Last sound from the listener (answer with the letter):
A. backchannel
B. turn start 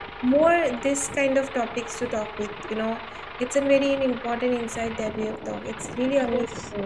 B